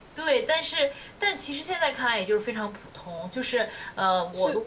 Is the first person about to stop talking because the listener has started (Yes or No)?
Yes